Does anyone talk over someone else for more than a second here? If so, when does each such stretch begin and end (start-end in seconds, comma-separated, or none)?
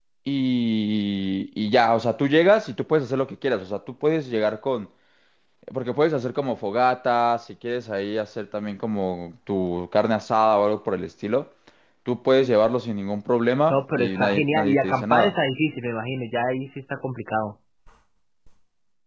13.7-15.3